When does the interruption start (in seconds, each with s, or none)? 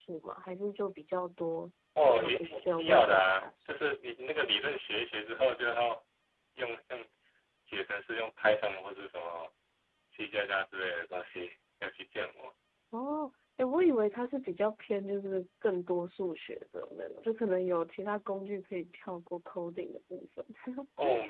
2.1 s